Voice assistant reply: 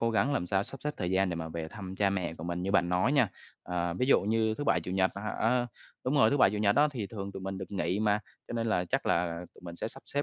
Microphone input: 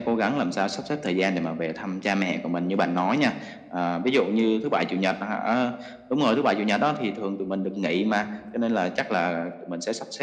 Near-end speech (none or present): none